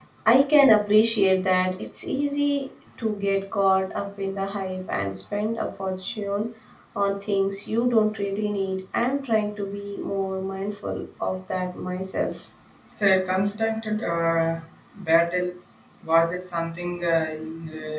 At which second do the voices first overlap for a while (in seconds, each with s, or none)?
none